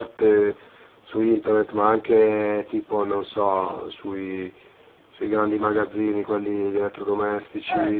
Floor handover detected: Yes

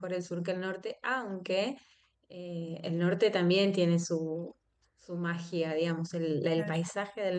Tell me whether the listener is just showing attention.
Yes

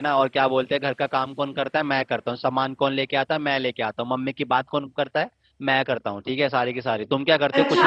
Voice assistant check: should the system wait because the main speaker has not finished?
No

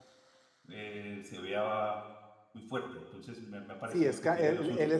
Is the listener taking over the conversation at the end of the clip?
Yes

